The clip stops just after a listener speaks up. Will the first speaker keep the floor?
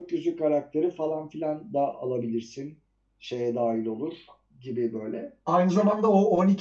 No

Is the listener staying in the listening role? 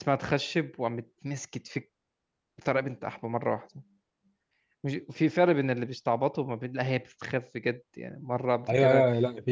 No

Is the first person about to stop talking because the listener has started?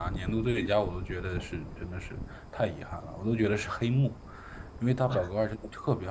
No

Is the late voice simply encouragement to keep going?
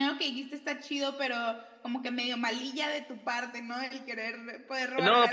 No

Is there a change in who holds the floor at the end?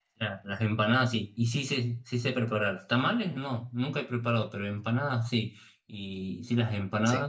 No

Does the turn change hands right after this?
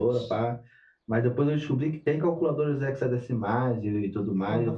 Yes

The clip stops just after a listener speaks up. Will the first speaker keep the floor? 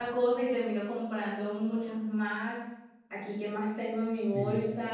Yes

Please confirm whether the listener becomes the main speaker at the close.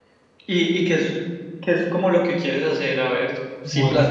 No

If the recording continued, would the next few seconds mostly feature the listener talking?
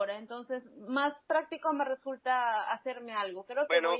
Yes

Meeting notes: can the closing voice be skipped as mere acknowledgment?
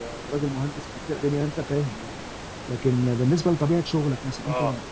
Yes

